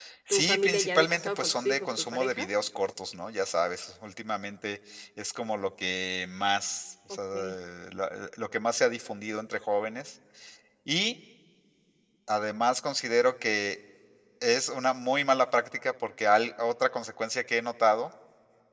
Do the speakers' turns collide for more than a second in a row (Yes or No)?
Yes